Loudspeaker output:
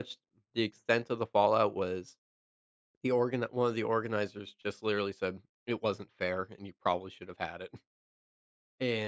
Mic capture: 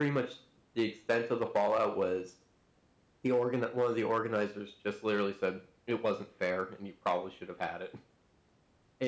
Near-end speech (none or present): none